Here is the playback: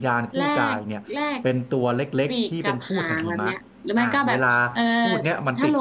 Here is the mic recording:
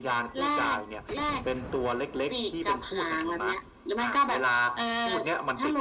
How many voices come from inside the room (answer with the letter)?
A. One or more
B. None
B